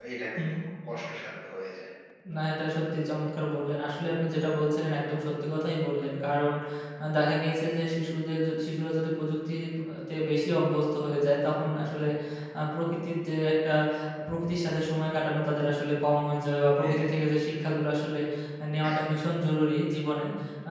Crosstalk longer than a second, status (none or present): none